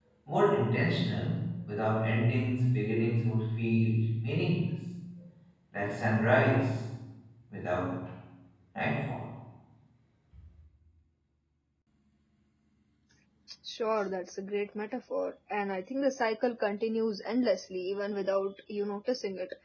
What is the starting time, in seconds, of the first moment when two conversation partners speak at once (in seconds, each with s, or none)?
none